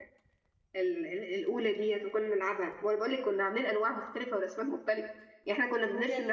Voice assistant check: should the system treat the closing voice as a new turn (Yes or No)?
No